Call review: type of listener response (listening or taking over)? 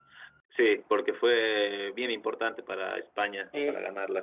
taking over